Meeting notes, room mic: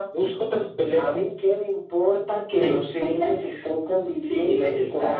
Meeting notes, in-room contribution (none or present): none